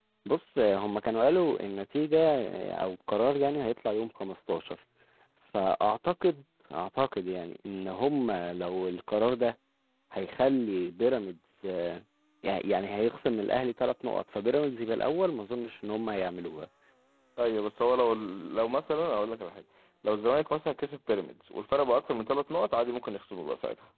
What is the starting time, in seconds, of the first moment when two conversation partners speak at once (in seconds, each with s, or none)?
none